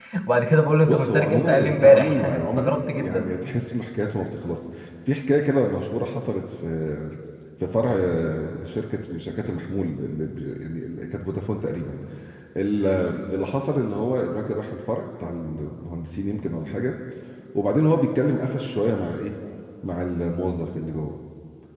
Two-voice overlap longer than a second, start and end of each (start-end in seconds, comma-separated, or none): 0.8-3.3